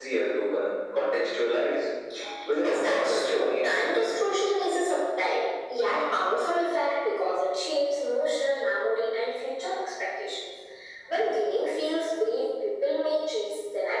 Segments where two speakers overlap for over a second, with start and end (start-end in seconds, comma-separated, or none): 2.5-4.0